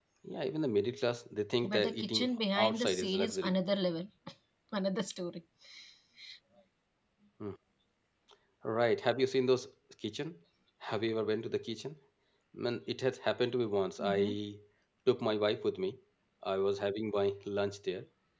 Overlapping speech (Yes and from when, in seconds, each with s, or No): Yes, from 1.6 s